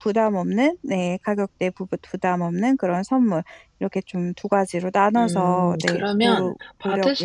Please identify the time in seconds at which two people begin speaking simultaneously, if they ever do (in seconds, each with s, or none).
5.2 s